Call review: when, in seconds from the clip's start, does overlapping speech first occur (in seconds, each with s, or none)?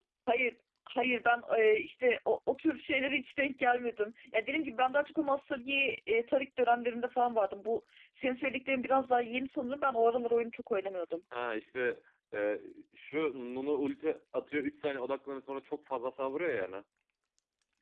none